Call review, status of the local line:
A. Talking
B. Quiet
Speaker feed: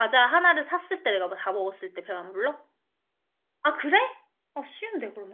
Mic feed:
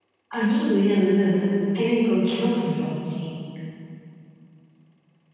A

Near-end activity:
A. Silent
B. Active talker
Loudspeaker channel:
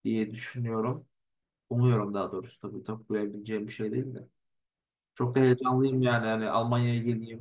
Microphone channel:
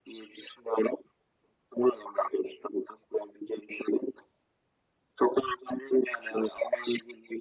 A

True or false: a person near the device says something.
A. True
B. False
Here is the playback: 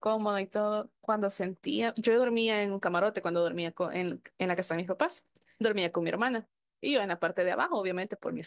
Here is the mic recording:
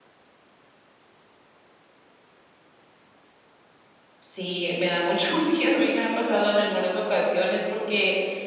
A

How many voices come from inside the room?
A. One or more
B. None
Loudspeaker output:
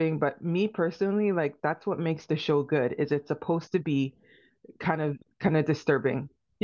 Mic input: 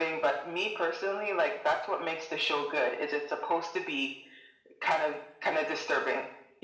B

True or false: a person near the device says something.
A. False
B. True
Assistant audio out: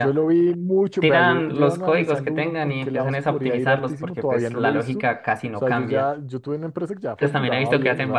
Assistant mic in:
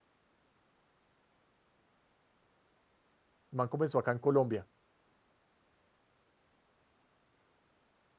B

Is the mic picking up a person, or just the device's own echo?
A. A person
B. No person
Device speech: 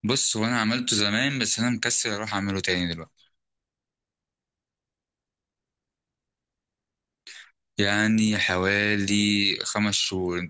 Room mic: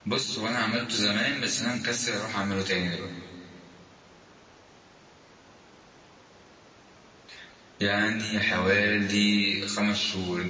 B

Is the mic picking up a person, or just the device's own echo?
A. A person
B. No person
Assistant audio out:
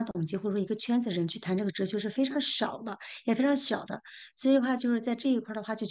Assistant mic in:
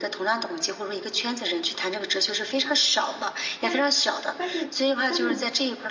A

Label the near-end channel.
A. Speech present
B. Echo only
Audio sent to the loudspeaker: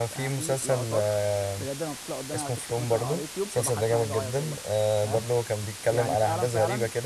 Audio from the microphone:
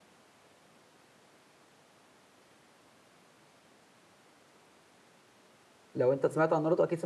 A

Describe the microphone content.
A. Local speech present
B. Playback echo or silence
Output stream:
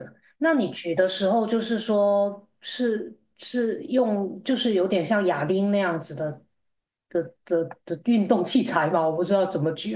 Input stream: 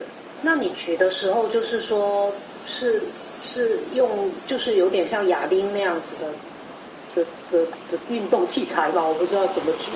B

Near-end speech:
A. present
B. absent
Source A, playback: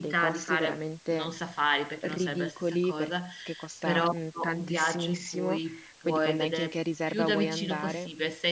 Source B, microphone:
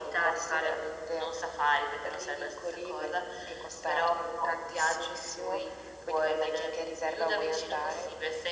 B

